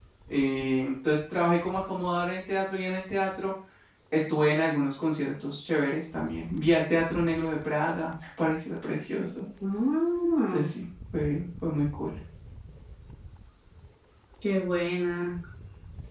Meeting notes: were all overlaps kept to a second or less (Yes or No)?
Yes